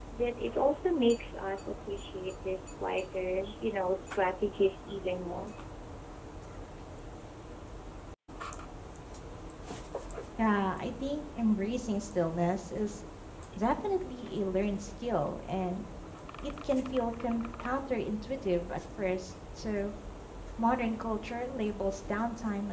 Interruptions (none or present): none